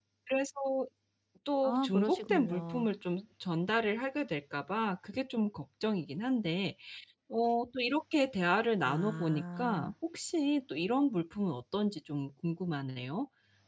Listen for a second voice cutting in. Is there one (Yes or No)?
Yes